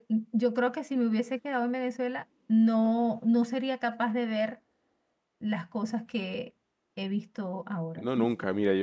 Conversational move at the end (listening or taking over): taking over